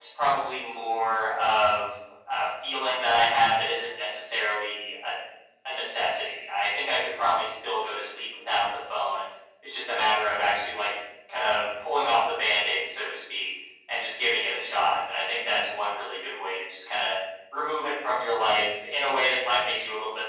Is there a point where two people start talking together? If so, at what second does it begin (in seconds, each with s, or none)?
none